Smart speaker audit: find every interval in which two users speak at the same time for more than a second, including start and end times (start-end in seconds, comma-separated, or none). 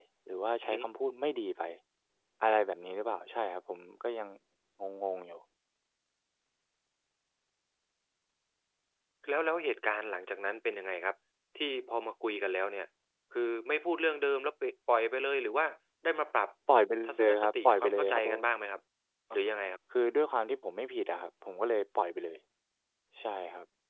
17.1-18.5